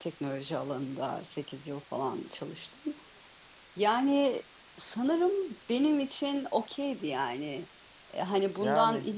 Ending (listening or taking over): listening